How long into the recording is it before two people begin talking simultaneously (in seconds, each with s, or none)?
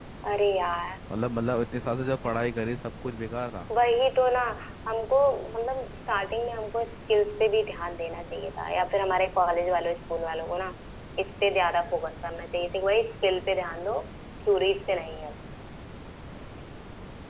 none